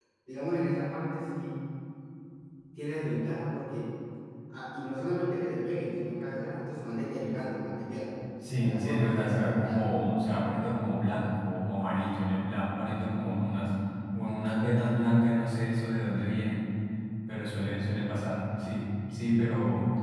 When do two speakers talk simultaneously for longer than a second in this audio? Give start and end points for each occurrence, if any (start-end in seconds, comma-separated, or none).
8.5-9.9